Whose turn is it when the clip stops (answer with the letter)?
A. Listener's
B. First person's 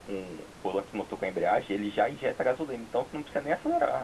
A